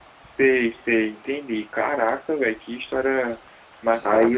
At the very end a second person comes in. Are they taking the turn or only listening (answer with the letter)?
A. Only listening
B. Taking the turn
B